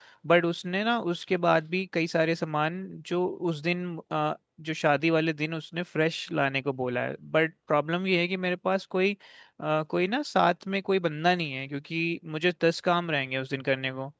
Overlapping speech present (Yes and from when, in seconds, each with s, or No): No